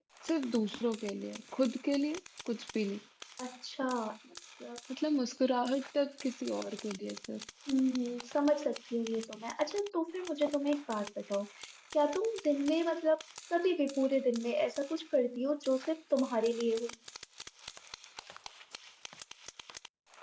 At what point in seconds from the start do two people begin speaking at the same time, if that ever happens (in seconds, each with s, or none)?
none